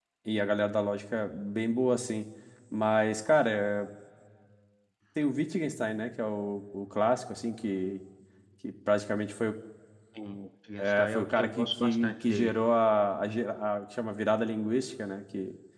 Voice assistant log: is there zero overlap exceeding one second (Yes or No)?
No